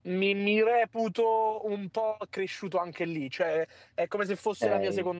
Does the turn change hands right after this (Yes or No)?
No